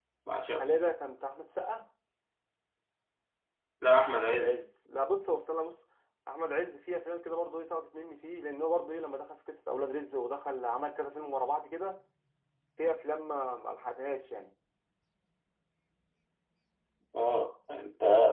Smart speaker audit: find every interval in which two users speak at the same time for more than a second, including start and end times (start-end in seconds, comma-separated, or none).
none